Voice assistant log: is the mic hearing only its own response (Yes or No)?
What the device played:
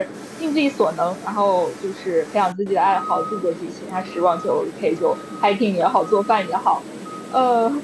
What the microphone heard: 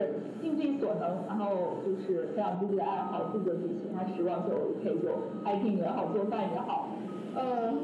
Yes